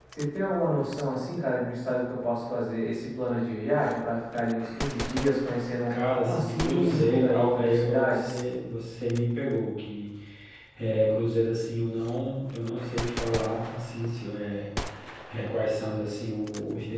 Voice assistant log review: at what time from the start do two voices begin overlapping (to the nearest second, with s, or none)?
6 s